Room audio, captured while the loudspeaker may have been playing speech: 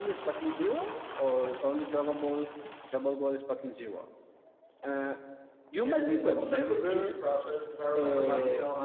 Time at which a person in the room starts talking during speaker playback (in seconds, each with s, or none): 5.8 s